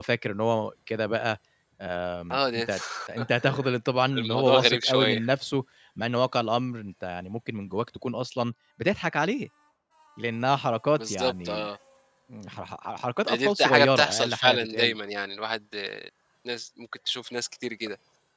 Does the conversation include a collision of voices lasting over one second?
Yes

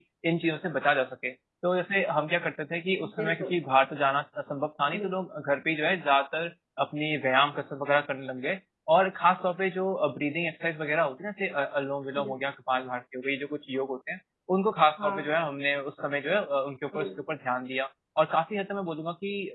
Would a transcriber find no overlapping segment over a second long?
Yes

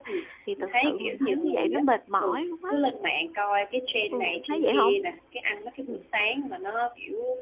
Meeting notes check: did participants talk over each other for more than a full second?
Yes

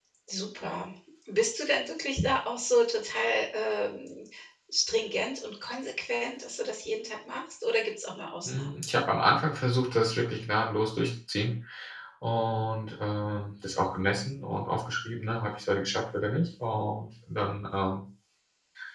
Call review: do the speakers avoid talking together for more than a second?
Yes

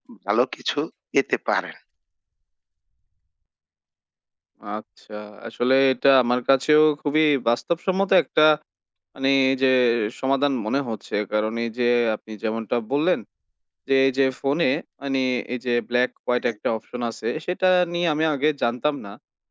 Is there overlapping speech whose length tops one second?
No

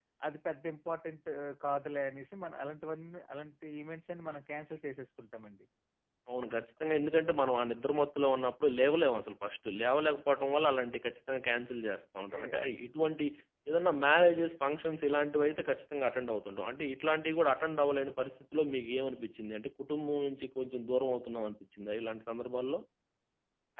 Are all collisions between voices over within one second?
Yes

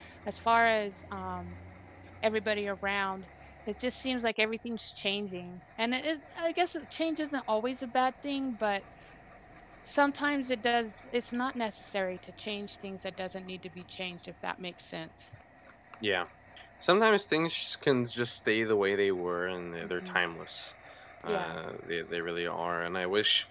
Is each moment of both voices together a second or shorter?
Yes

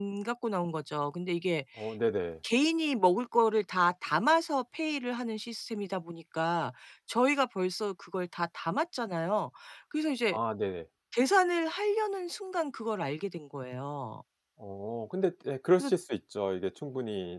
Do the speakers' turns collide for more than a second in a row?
No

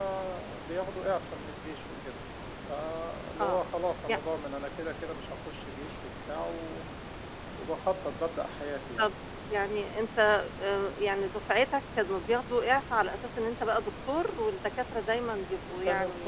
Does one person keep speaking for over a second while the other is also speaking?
No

